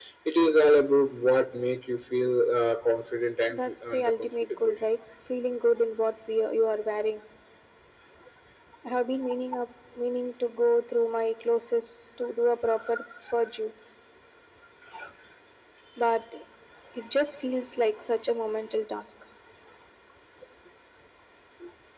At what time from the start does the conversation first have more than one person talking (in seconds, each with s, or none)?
3.5 s